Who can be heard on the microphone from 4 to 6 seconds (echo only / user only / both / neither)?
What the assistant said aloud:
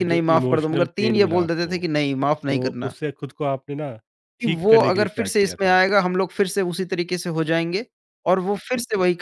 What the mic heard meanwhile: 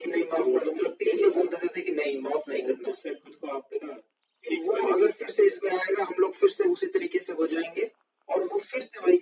echo only